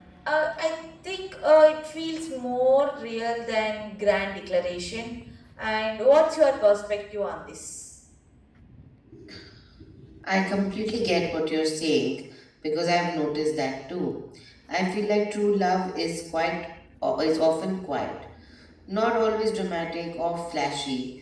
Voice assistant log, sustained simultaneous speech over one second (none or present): none